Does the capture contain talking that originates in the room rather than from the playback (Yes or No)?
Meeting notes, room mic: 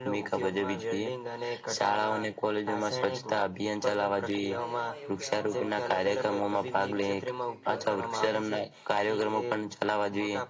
Yes